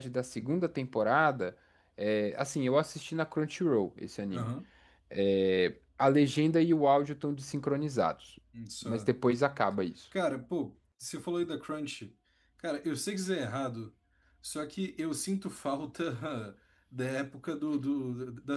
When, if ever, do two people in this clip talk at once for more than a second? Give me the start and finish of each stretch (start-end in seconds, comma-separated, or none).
none